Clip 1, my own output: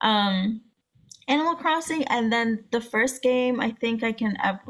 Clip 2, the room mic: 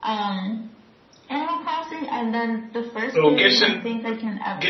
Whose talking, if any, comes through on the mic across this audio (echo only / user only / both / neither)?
both